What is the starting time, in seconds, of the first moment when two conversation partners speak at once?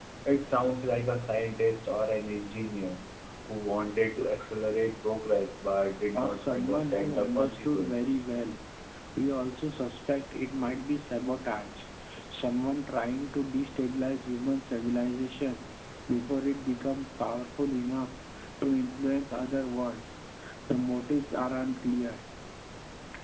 6.1 s

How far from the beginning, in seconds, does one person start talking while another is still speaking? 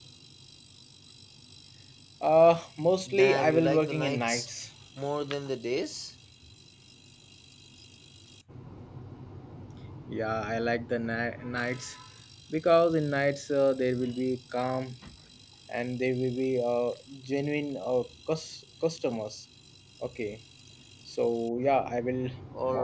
3.1 s

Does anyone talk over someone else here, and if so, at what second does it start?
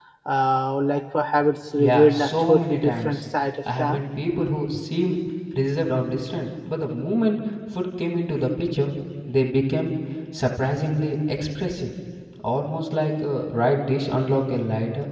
1.8 s

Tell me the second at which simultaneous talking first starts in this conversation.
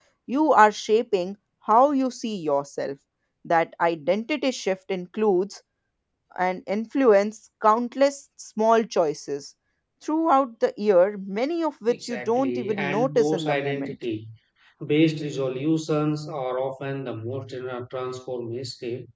11.9 s

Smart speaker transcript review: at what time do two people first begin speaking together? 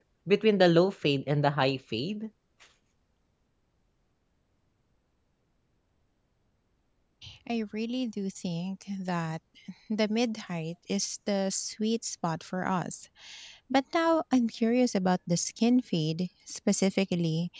none

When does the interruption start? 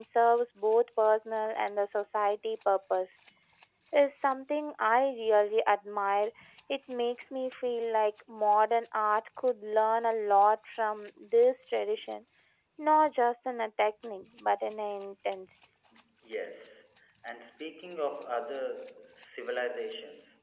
none

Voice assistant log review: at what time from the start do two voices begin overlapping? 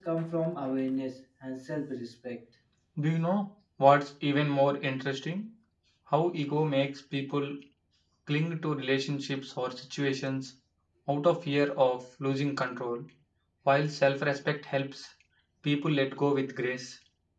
none

